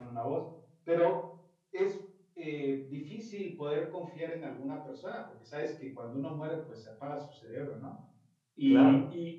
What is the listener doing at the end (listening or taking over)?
listening